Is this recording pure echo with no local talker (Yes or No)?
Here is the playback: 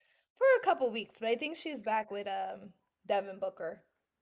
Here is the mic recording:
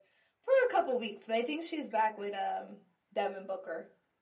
Yes